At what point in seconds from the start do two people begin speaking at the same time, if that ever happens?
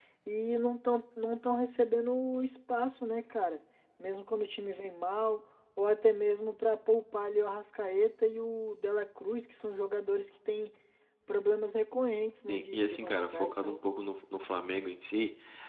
12 s

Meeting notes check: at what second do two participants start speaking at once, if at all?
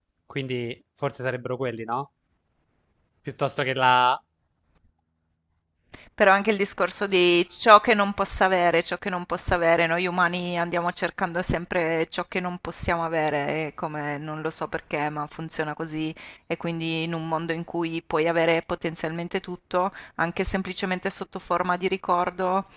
none

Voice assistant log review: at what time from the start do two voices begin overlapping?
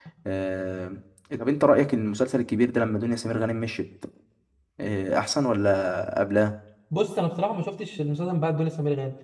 none

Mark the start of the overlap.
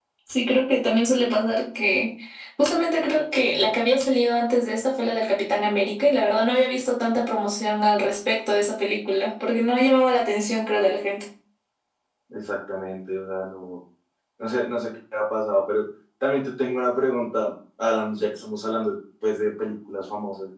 none

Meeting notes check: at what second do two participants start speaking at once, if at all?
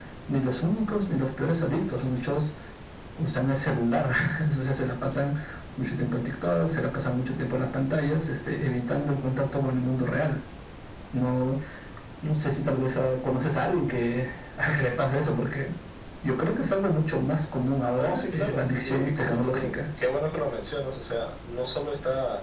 18 s

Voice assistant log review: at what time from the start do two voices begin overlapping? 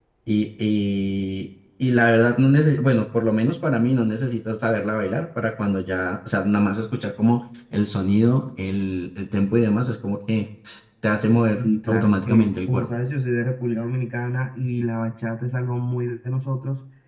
12 s

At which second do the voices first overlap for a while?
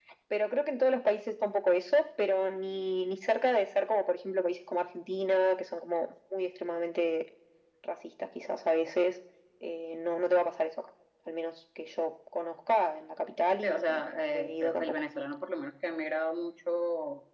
14 s

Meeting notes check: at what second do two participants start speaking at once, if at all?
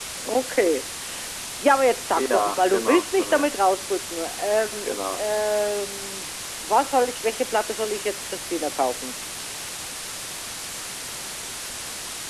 2 s

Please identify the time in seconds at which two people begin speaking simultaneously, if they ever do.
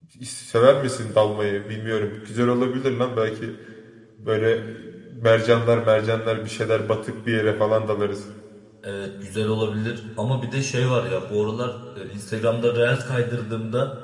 none

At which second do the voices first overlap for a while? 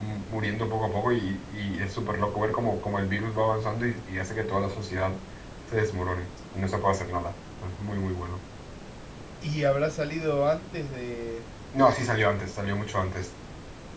none

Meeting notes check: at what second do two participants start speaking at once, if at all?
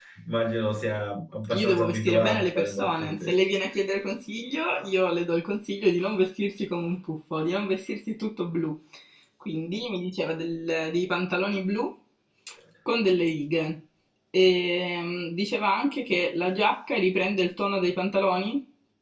2 s

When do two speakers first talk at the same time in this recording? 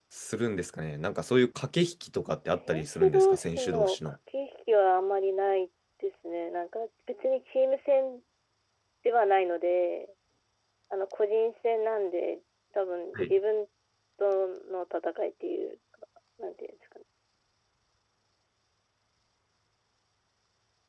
3 s

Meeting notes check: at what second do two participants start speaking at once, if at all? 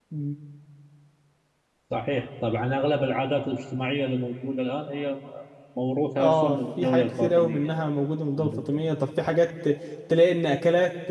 6 s

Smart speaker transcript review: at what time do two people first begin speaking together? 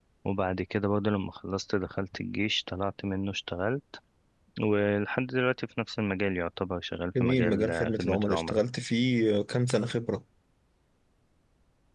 7 s

